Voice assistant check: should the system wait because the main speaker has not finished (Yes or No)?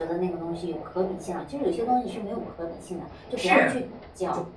No